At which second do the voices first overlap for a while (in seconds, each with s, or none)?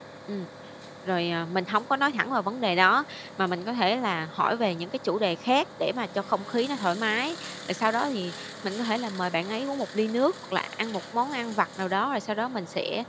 none